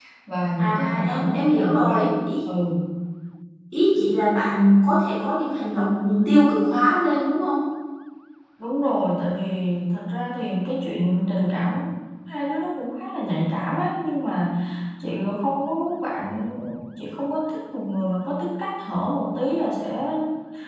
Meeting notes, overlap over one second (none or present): present